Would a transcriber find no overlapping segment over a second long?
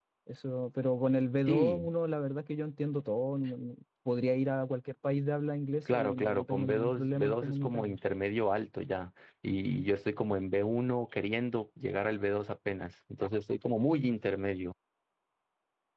No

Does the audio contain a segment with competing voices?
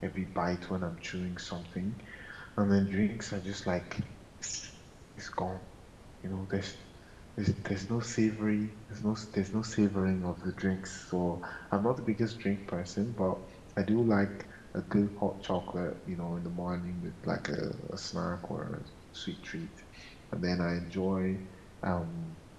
No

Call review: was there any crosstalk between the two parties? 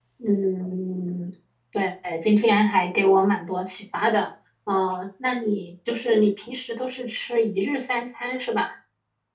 No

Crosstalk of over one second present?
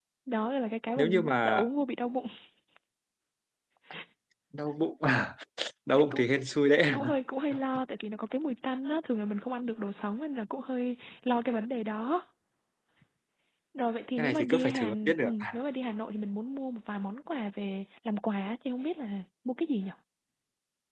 Yes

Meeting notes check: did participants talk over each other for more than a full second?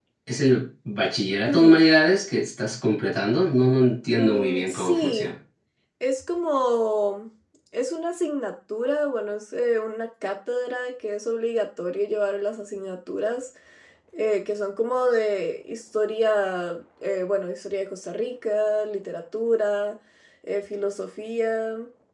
Yes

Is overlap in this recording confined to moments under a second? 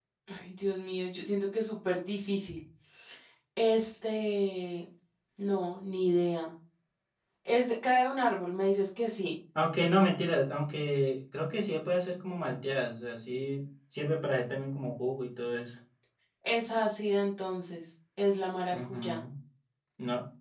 Yes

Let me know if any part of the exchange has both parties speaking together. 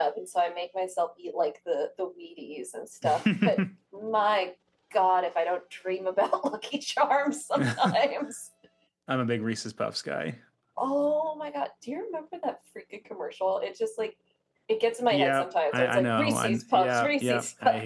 Yes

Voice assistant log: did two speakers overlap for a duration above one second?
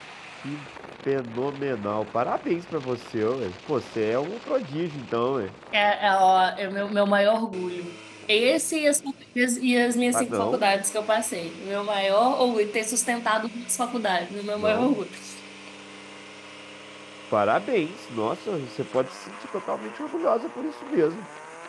No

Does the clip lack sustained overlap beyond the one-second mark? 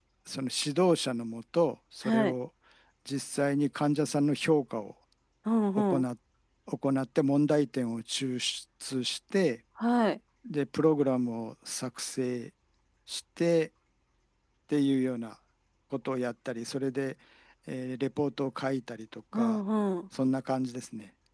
Yes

